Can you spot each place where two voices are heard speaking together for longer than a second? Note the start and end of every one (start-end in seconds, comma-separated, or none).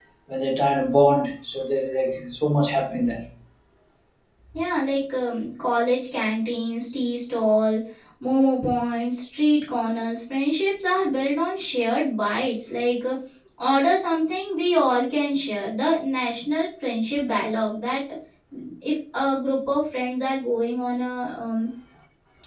none